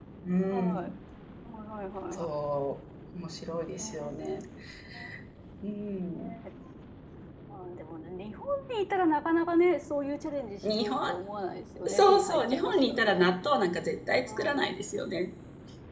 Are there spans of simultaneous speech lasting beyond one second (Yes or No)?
Yes